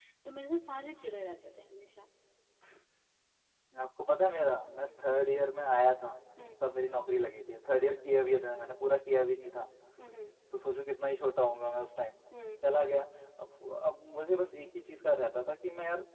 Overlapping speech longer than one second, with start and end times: none

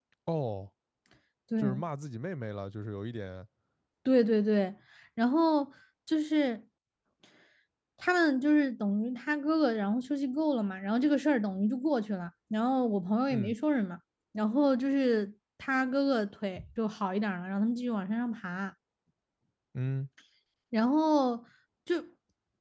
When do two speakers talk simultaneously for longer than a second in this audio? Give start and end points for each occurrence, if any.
none

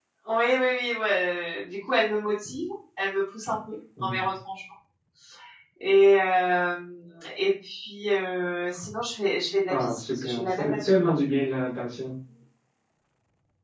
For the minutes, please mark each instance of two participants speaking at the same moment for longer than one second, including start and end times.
9.7-10.9

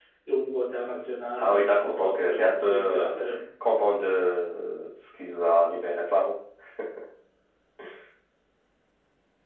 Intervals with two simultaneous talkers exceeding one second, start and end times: 1.4-3.2

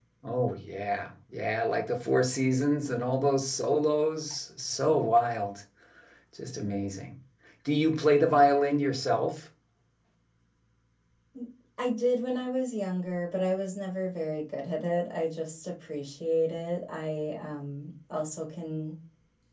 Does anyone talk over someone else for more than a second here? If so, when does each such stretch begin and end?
none

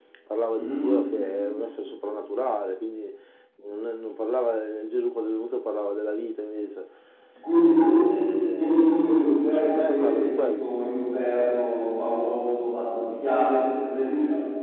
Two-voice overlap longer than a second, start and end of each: 8.6-10.7

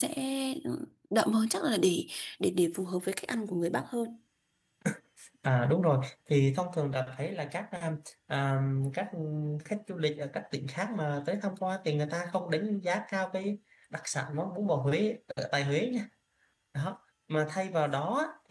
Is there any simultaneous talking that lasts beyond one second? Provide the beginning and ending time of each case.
none

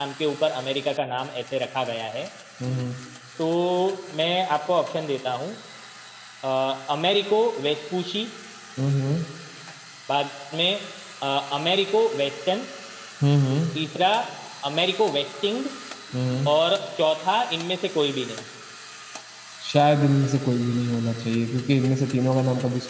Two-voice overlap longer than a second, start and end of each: none

